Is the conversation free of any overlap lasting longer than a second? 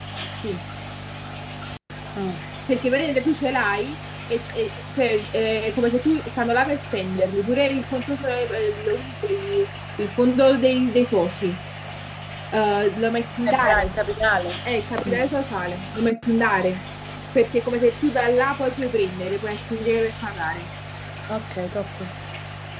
Yes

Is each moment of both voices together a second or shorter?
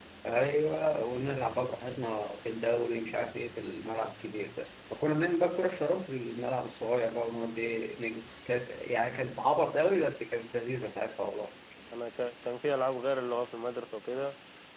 Yes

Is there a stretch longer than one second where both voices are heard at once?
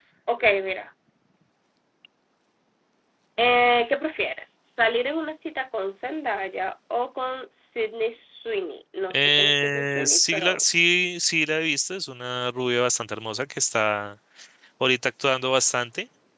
Yes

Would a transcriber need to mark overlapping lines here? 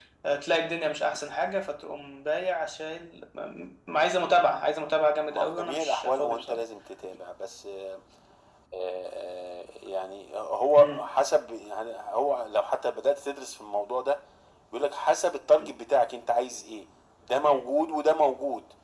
Yes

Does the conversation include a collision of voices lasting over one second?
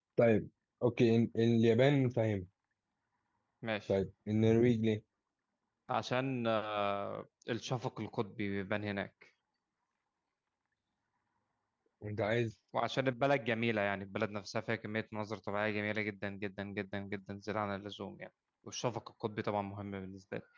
No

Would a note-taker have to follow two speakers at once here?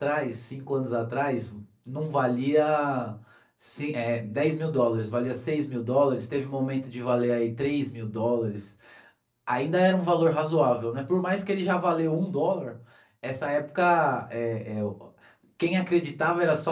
No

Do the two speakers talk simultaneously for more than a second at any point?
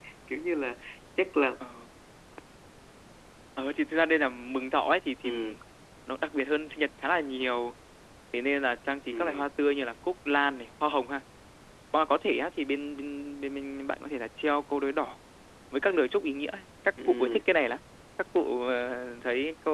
No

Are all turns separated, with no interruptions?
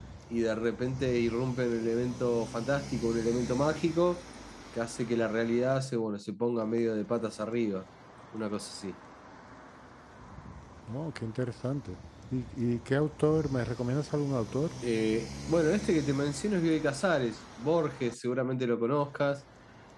Yes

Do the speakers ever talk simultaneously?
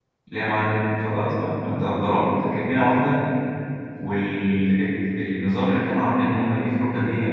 No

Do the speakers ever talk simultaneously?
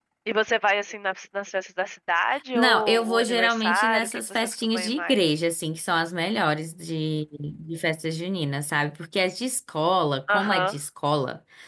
Yes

